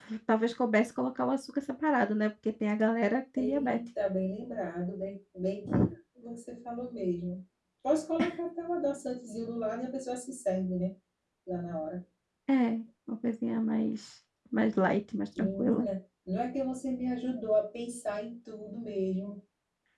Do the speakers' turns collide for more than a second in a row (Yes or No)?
No